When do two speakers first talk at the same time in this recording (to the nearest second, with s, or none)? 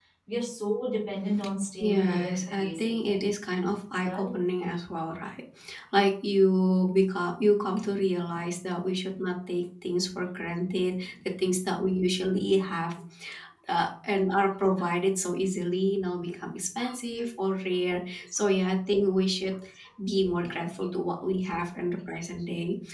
2 s